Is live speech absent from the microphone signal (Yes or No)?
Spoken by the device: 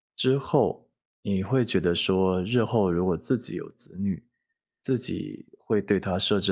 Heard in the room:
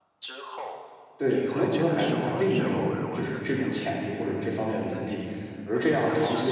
No